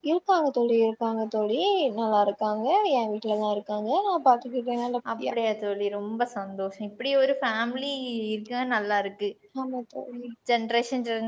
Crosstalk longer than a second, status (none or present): none